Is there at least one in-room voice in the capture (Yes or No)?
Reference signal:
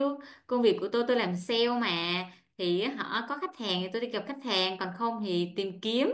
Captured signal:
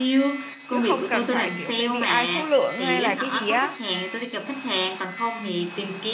Yes